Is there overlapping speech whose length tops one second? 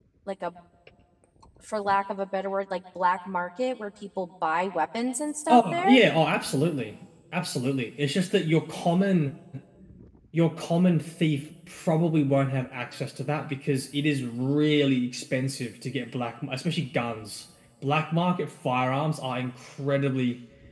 No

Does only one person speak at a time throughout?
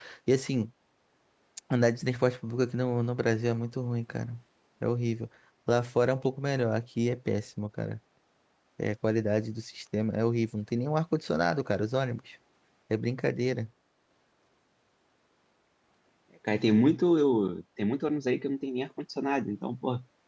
Yes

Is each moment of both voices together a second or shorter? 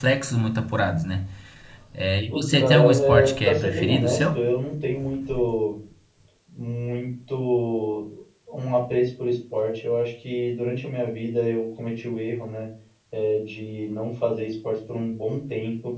No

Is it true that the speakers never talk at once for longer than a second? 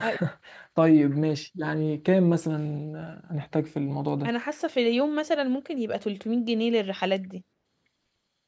Yes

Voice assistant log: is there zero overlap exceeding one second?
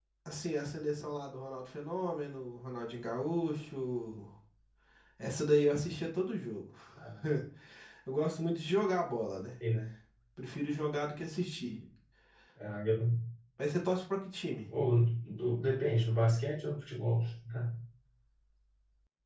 Yes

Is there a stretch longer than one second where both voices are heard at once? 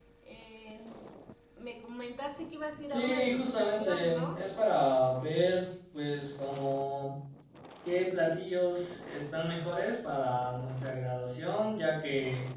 Yes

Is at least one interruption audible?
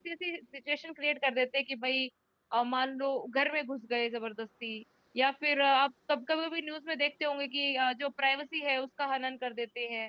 No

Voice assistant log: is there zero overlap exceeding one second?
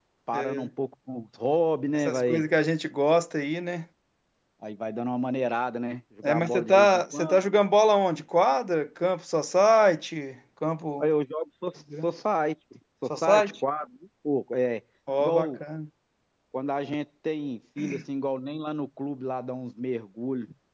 No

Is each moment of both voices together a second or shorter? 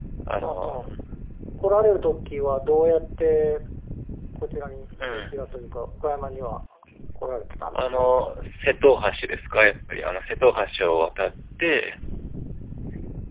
Yes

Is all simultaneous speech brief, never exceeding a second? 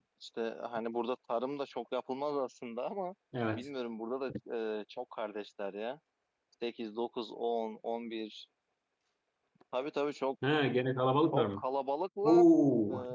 Yes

